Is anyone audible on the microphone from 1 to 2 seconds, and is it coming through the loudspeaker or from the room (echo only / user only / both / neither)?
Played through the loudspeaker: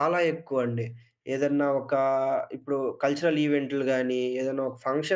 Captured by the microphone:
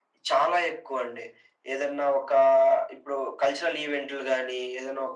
echo only